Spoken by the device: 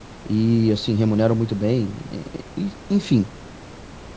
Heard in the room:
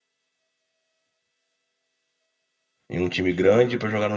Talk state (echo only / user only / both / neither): user only